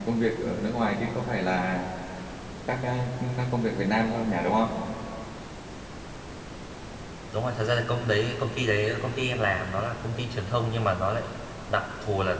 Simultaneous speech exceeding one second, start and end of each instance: none

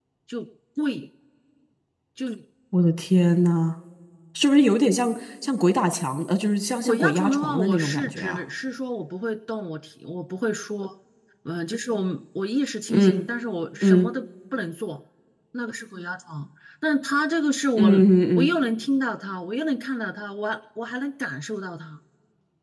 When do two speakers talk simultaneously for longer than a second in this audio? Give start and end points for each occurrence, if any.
6.8-8.4

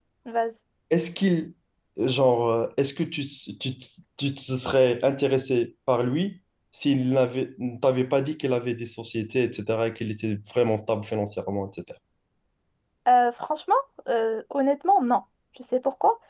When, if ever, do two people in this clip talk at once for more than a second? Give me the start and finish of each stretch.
none

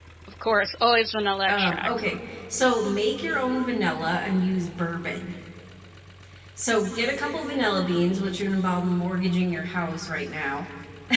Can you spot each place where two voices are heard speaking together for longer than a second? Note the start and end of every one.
none

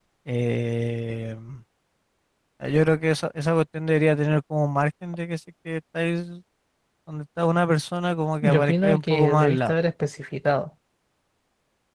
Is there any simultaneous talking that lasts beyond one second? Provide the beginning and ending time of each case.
8.4-9.7

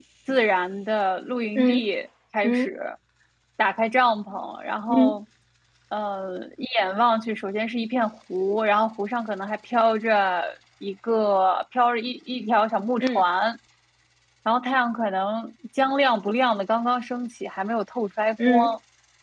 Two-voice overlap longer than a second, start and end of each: none

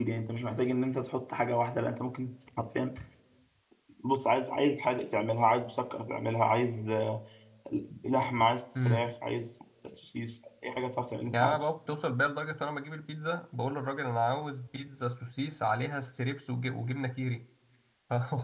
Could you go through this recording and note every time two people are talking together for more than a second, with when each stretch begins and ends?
none

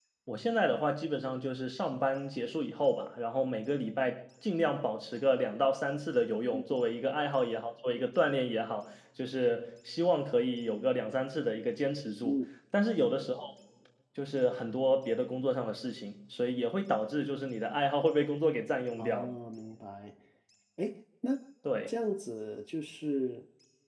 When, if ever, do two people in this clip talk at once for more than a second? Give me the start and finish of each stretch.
none

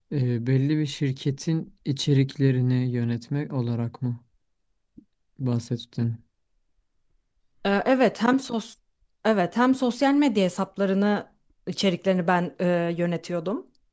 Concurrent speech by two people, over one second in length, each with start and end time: none

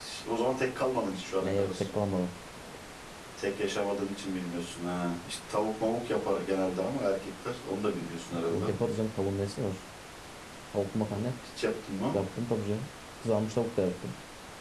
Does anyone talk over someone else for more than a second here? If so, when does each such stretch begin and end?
none

